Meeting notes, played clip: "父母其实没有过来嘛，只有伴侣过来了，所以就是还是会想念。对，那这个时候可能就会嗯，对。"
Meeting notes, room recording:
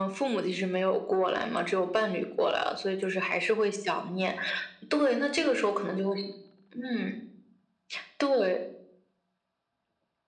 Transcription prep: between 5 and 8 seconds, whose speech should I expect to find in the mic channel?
echo only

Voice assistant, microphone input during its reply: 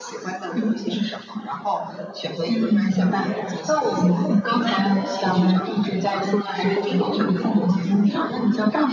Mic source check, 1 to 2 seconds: echo only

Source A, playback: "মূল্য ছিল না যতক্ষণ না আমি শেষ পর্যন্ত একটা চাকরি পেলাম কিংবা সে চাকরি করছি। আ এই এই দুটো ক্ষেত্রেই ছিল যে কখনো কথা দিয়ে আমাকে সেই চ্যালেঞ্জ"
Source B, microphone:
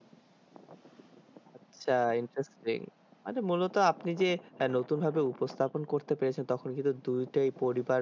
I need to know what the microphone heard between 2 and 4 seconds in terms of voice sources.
user only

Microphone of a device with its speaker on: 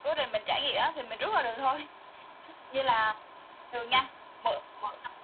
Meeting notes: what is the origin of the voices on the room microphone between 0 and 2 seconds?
echo only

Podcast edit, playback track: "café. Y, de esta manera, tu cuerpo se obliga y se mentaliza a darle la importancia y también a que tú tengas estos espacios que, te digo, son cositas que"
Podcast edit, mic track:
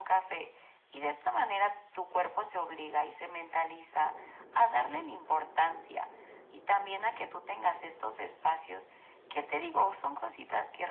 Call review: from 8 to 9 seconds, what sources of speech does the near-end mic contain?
echo only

